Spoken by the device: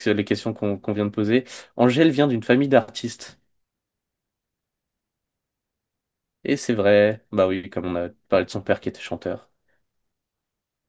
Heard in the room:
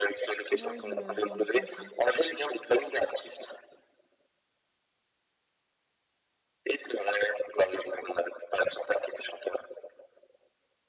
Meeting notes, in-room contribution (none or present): present